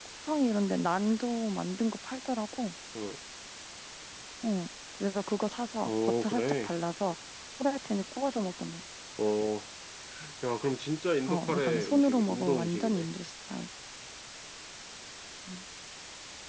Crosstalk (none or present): present